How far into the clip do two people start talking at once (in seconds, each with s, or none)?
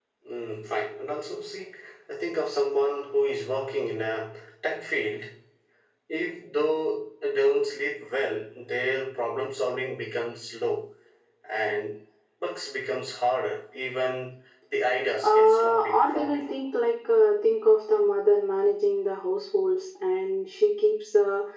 15.2 s